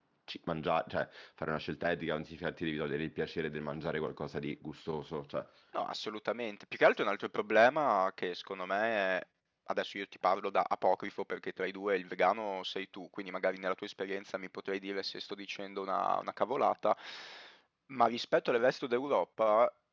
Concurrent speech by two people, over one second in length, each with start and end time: none

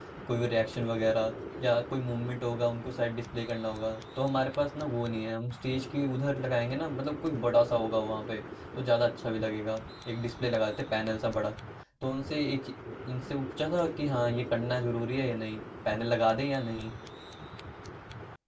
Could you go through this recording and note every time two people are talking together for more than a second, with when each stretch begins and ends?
none

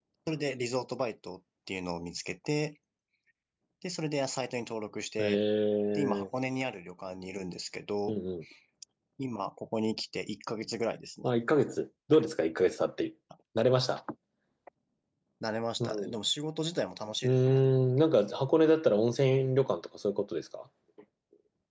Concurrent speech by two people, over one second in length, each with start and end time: none

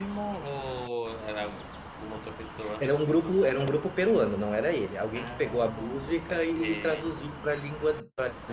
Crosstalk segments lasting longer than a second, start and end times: 5.2-7.1

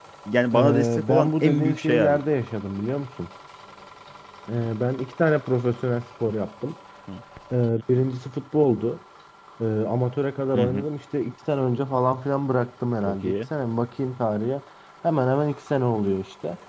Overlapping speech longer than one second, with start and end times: 0.5-2.2

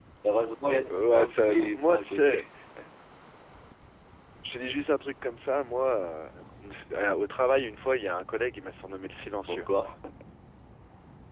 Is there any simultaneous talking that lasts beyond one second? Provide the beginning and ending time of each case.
0.7-2.4

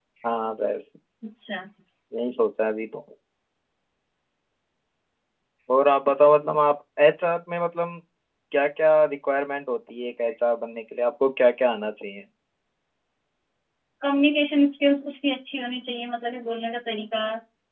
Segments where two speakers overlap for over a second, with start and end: none

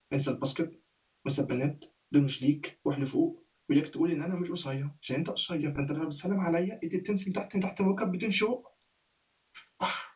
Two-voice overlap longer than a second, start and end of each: none

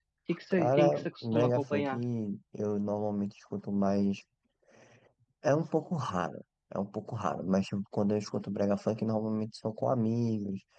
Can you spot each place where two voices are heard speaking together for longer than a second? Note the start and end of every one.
0.5-1.9

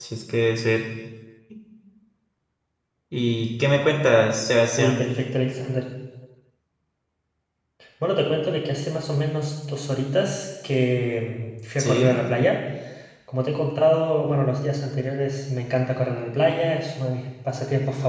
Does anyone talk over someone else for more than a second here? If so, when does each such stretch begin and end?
none

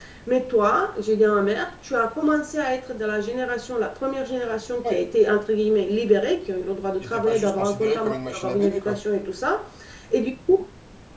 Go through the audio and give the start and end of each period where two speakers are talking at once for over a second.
7.0-9.0

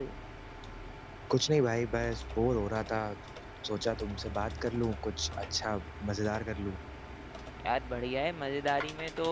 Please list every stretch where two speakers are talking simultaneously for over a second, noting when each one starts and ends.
none

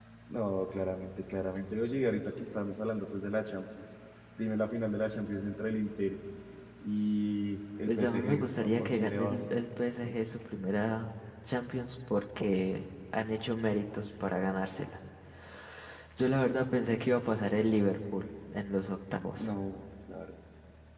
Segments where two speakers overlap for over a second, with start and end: 7.9-9.4

